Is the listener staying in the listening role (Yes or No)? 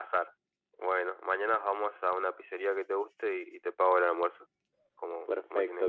No